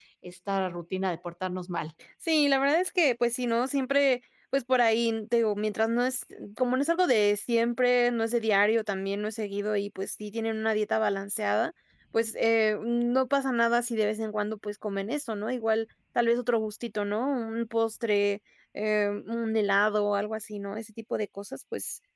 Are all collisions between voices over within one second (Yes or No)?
Yes